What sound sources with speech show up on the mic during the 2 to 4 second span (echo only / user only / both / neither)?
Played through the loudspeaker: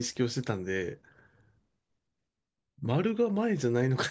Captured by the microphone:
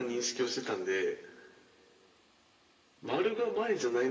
echo only